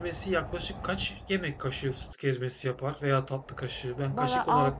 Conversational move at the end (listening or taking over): taking over